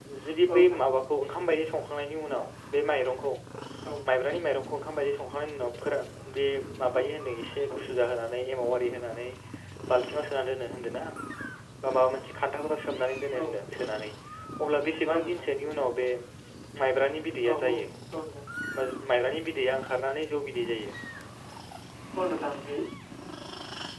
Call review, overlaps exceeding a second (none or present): none